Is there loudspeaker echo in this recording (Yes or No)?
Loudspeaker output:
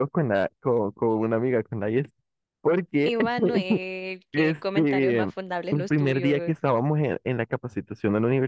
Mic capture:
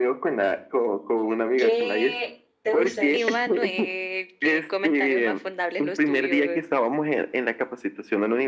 Yes